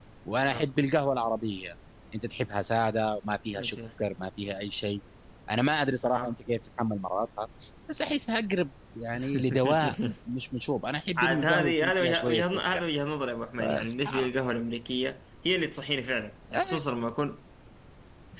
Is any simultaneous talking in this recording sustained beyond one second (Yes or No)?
Yes